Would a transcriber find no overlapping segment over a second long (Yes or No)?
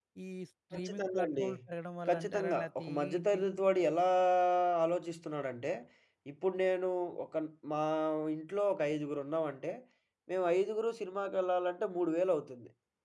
No